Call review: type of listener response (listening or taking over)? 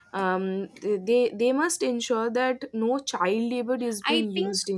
taking over